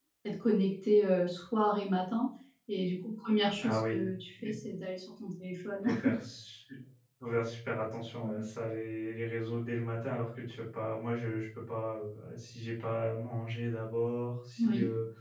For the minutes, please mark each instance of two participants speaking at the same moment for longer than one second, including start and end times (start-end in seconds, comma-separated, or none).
none